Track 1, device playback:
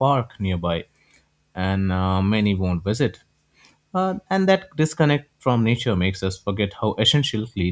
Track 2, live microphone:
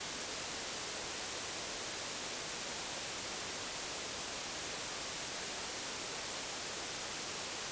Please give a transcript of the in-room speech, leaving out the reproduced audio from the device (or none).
none